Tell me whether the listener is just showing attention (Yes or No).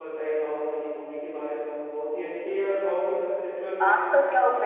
No